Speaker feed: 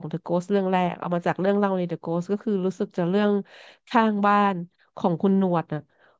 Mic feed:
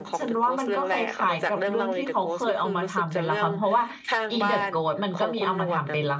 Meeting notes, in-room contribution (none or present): present